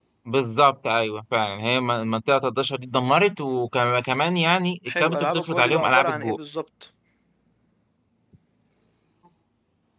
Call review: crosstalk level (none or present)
present